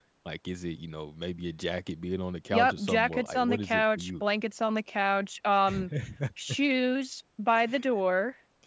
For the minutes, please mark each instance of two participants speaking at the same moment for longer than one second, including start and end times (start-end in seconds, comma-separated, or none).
2.5-4.2